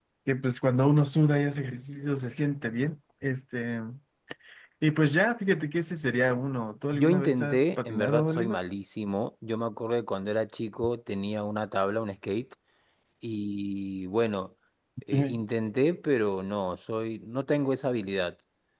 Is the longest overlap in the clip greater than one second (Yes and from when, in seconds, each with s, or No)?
Yes, from 6.9 s